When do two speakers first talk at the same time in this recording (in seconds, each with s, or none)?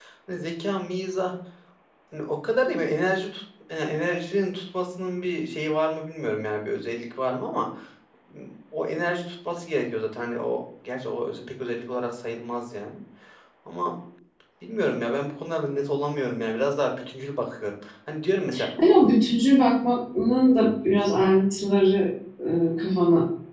none